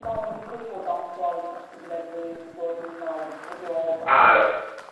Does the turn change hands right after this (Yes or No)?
No